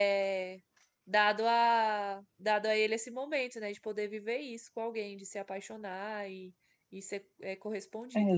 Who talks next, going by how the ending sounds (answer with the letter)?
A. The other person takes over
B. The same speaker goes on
A